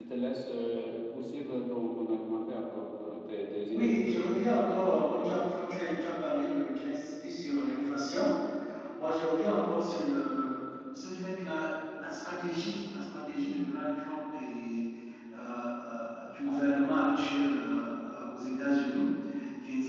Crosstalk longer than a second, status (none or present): none